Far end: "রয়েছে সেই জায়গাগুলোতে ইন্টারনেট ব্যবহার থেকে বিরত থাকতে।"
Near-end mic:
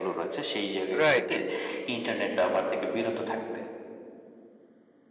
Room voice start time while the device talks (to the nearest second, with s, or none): 1 s